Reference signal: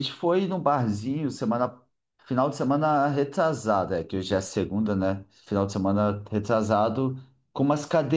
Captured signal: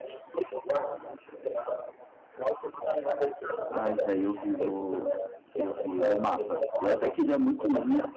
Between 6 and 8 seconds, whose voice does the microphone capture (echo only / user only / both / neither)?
both